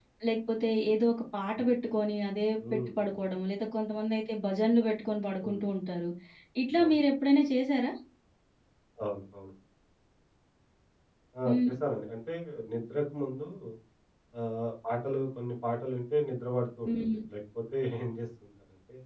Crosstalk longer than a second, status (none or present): none